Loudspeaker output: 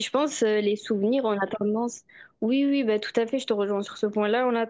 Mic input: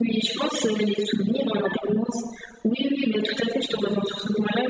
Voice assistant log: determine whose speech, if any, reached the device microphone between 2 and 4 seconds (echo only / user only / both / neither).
echo only